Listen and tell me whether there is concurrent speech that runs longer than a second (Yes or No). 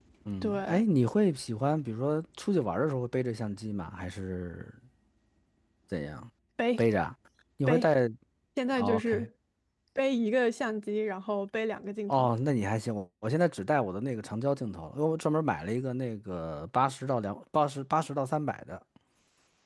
No